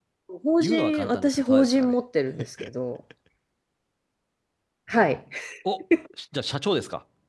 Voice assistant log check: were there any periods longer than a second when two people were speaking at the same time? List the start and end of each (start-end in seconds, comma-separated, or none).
0.6-1.9